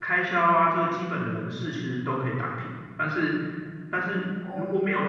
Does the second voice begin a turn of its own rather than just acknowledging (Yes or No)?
No